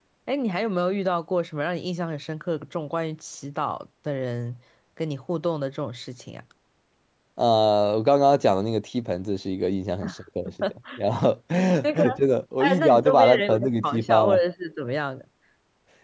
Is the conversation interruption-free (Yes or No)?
No